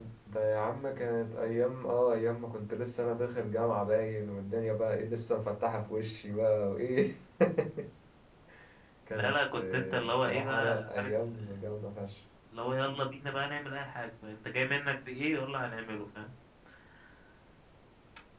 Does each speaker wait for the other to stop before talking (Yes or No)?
No